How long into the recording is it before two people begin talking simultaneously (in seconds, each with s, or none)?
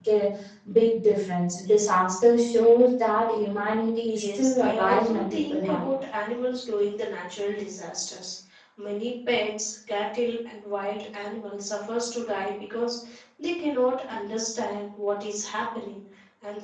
4.0 s